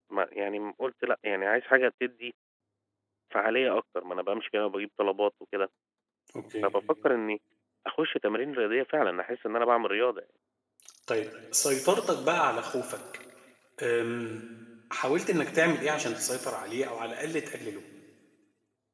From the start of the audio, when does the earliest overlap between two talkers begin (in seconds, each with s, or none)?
none